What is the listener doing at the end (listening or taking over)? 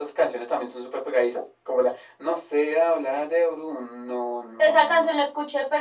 taking over